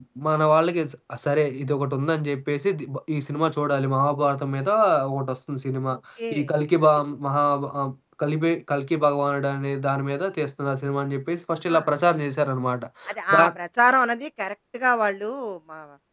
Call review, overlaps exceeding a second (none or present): none